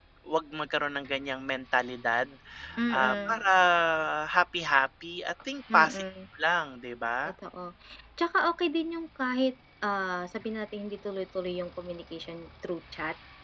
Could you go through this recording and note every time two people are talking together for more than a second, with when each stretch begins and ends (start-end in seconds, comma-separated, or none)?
none